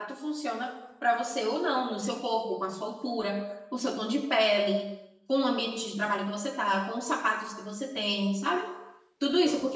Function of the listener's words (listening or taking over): listening